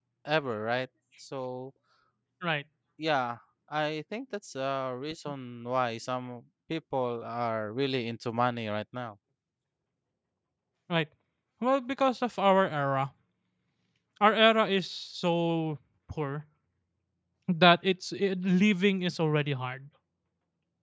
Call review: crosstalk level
none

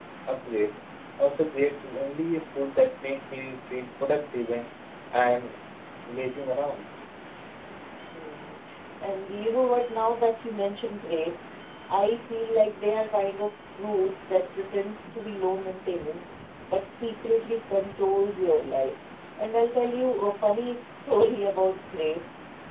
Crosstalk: none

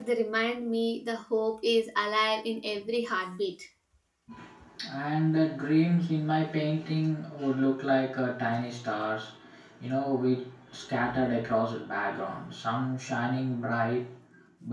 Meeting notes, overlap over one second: none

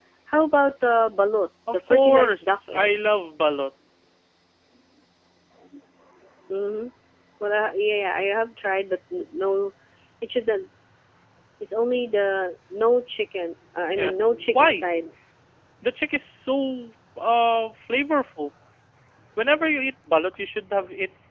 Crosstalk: present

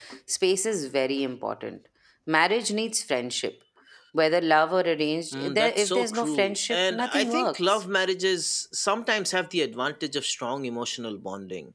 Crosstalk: present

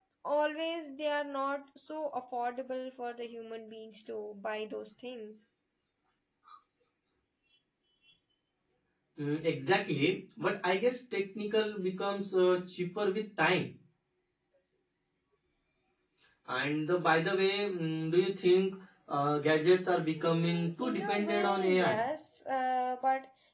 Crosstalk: present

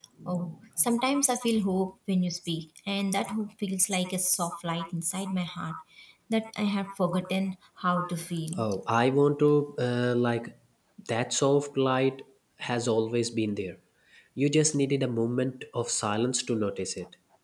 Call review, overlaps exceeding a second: none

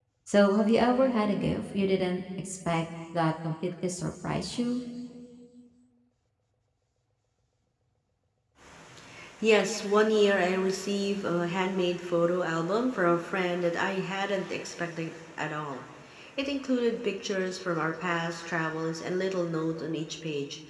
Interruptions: none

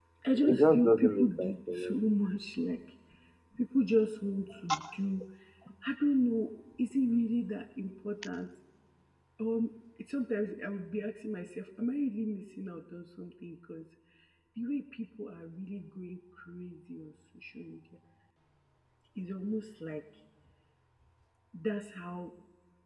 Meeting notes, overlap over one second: present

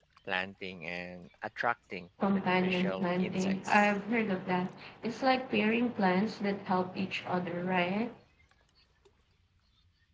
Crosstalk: present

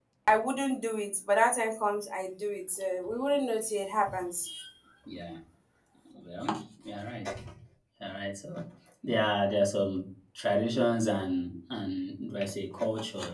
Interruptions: none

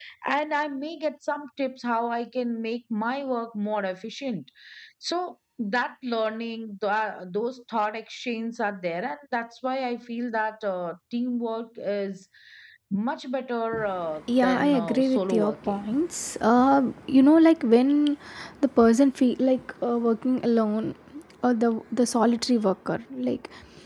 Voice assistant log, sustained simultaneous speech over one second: present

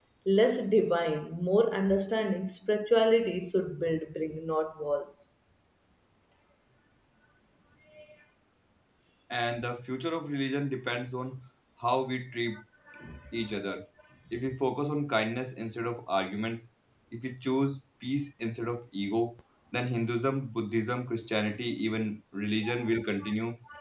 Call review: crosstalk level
none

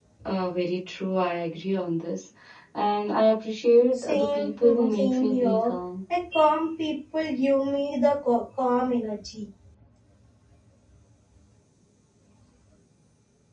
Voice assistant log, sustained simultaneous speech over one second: present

